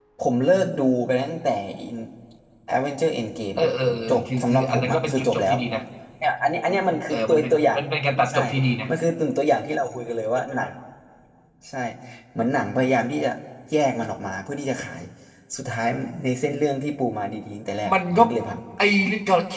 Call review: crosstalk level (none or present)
present